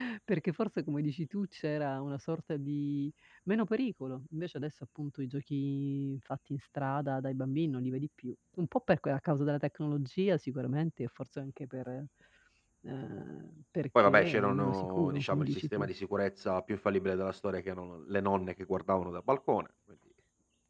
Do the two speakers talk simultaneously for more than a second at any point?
Yes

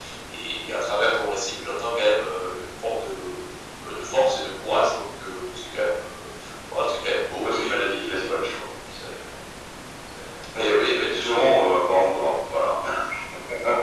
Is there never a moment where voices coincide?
No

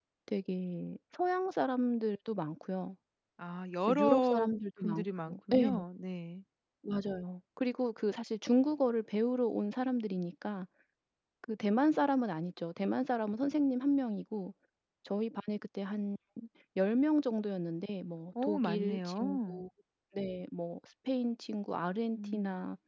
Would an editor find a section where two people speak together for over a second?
Yes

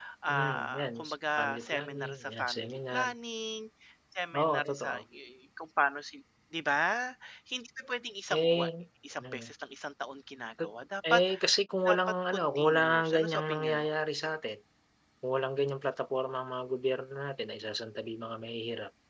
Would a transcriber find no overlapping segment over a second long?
No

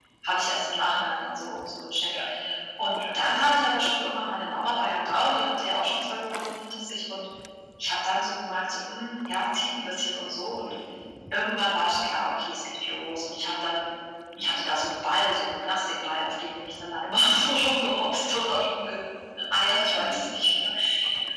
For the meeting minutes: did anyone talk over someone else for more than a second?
No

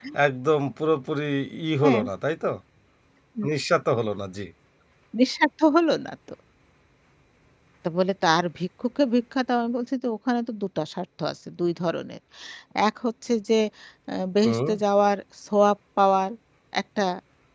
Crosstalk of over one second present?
No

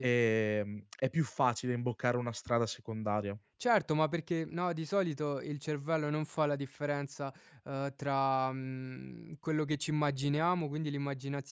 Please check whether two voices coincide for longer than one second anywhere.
No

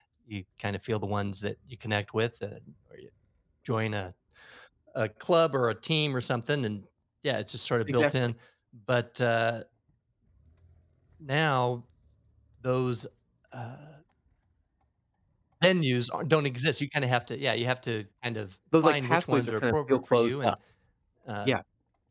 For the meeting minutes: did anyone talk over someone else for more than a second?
Yes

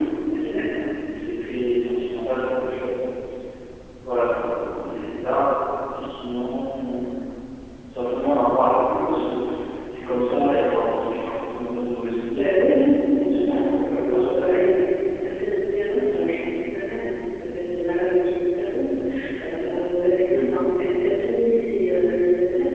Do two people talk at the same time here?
Yes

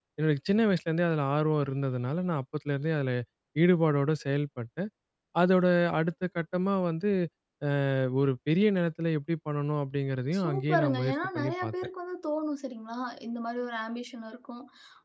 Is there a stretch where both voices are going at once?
Yes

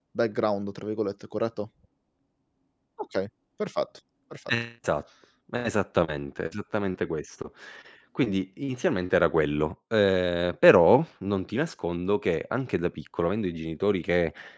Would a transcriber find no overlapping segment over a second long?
Yes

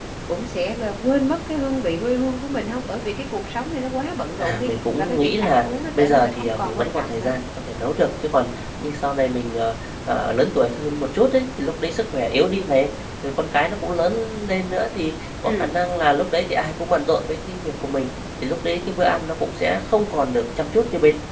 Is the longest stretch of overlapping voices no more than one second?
No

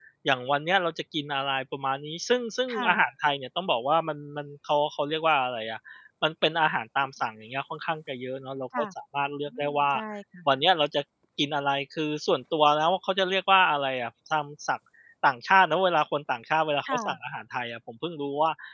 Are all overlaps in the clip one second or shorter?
Yes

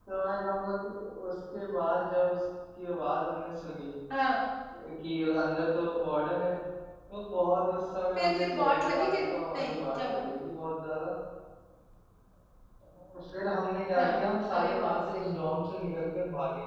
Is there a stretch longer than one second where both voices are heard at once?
Yes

